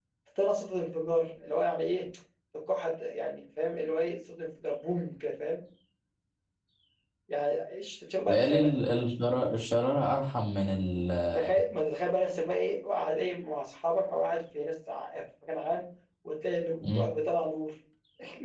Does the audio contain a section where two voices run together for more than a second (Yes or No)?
No